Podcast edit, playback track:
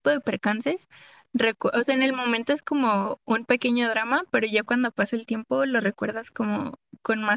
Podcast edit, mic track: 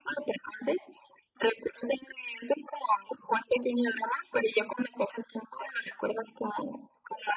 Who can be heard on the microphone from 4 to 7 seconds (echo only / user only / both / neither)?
echo only